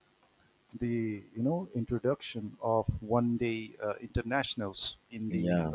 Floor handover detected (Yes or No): No